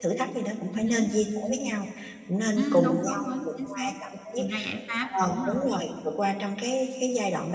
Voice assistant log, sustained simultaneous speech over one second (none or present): present